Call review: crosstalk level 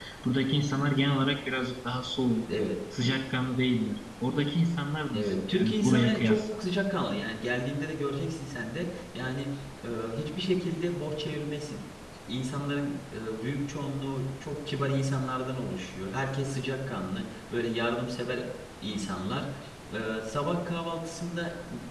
present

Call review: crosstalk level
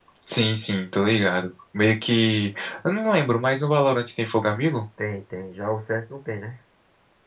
none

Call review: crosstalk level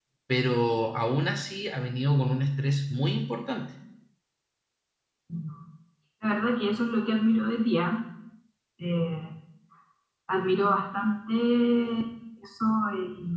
none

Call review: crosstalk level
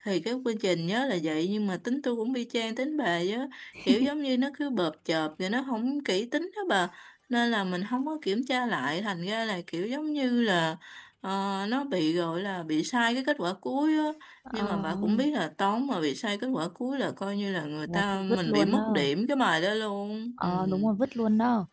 present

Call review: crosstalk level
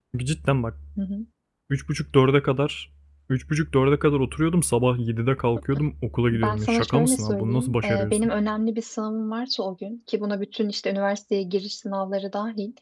present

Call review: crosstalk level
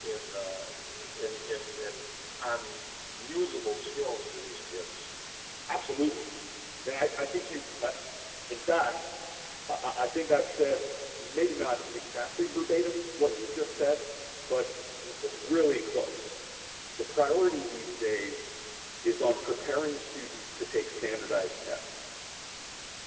none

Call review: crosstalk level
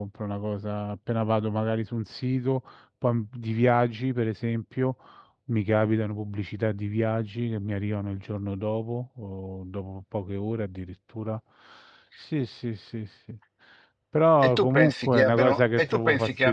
present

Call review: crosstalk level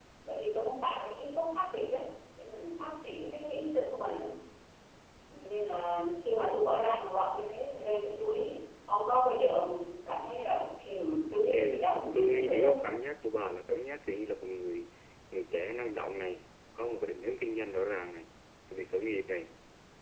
present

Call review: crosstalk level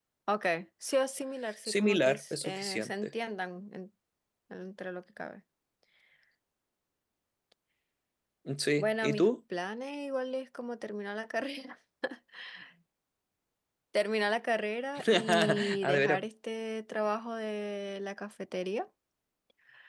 present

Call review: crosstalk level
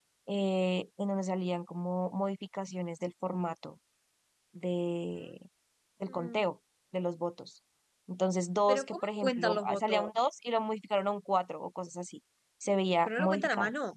present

